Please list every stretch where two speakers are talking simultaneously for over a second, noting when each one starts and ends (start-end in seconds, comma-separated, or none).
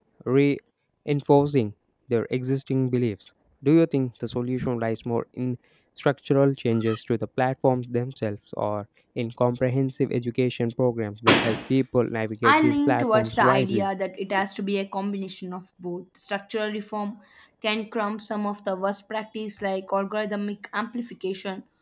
12.4-13.9